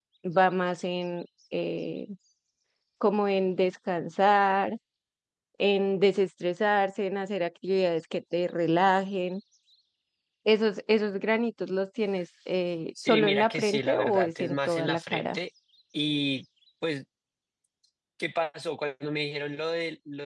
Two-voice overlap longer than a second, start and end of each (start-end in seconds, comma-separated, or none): 13.0-15.4